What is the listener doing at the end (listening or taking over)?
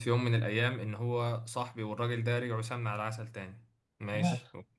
listening